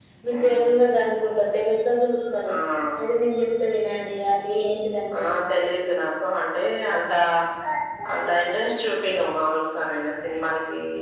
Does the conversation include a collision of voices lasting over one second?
No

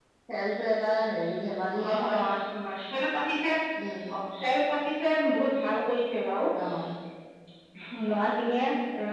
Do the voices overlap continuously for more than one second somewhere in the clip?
No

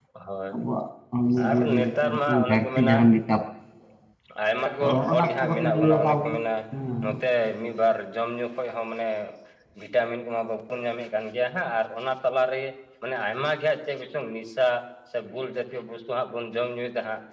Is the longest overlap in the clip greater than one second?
Yes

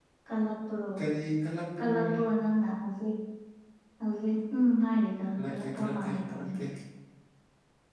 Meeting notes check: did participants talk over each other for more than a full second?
Yes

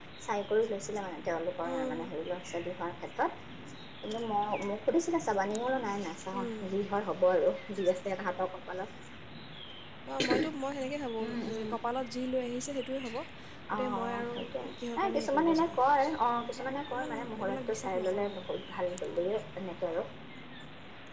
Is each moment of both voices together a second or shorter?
No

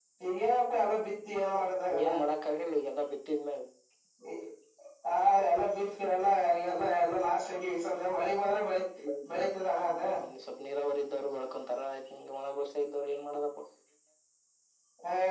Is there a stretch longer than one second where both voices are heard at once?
No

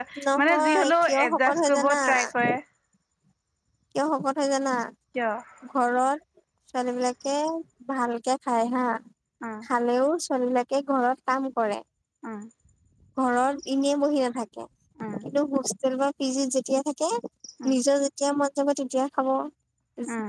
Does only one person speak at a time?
No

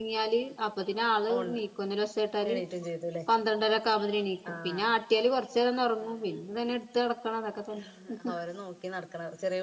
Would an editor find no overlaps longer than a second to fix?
Yes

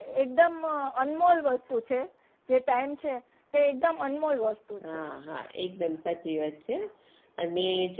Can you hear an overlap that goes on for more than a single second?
No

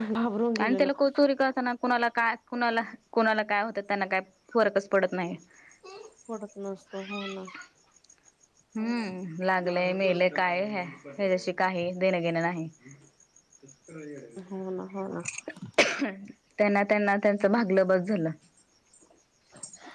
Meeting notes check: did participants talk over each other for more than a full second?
No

